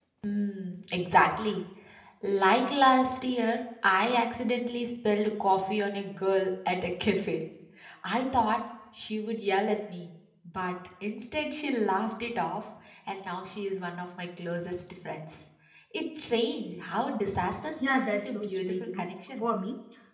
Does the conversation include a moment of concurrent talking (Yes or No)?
Yes